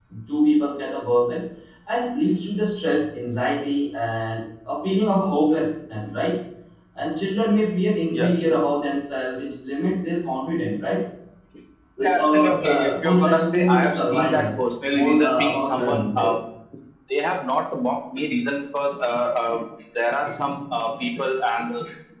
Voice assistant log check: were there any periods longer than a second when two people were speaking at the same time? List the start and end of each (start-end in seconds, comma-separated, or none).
12.0-14.5, 14.9-16.3